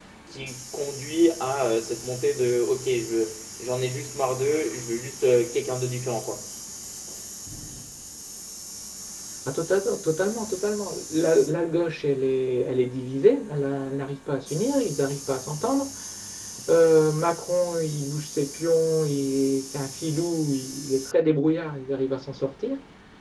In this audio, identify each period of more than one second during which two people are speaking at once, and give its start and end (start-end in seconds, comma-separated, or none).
none